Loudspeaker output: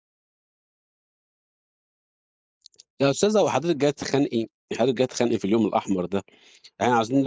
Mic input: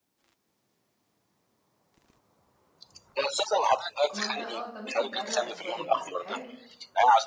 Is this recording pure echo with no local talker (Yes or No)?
No